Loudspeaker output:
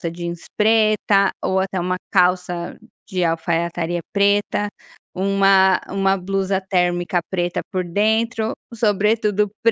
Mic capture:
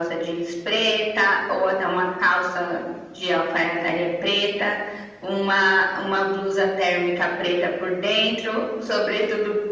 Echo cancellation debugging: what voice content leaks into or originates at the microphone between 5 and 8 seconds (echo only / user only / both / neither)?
echo only